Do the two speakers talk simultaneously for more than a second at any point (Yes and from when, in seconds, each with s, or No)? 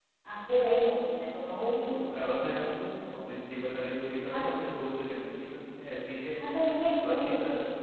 No